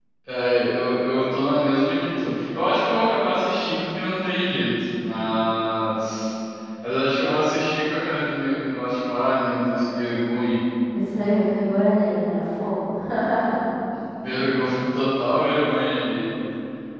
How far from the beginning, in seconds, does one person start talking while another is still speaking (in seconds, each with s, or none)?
none